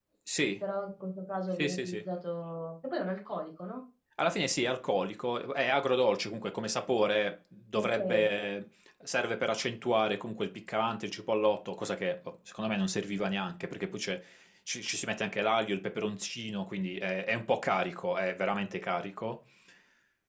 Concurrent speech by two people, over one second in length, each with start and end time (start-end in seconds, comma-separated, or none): none